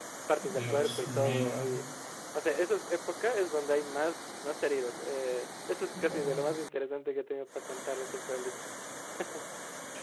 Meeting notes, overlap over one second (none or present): present